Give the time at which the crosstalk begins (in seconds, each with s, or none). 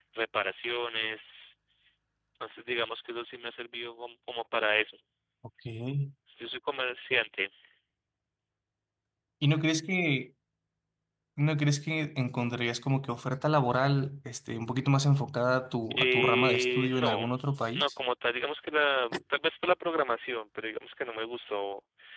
16.0 s